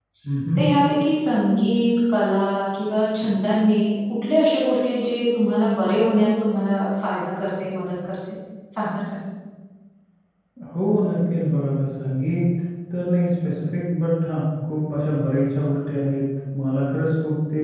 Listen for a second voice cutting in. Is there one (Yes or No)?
No